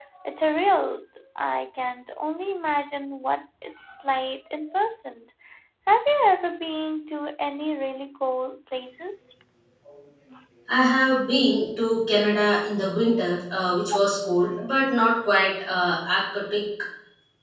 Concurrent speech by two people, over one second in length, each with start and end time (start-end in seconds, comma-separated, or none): none